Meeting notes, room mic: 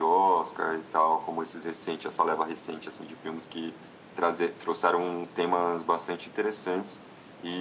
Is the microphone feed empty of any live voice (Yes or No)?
Yes